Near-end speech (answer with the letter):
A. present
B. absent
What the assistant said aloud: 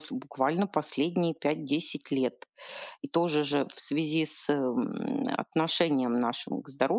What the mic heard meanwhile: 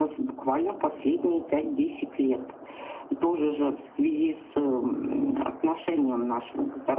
B